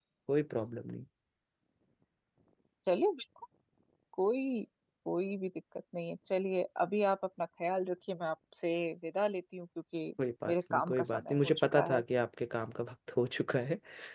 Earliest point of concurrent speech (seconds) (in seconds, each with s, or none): 10.5 s